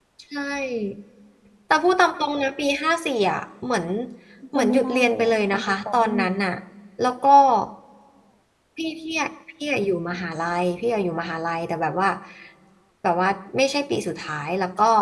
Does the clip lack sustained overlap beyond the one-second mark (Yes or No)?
No